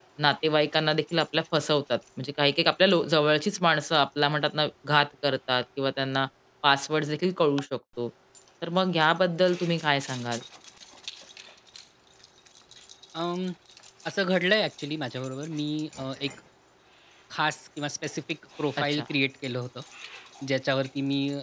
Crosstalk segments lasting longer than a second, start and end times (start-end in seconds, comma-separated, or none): none